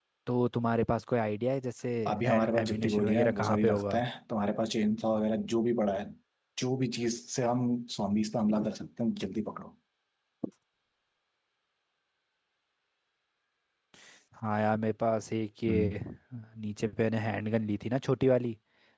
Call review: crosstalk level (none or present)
present